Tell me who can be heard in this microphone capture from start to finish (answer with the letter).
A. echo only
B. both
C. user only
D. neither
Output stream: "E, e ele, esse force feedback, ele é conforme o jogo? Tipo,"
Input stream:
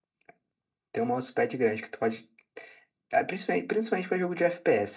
C